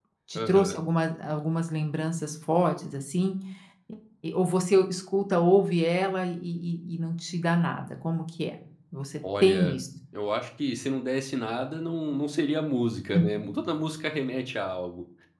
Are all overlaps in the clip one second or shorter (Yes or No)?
Yes